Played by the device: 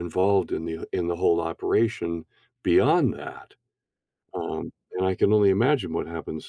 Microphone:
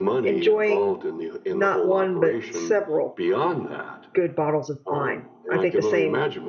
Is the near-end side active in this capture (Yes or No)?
Yes